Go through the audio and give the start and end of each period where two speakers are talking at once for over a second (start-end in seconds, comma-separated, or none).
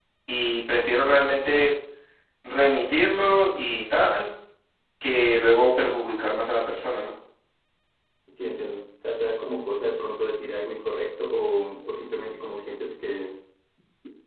none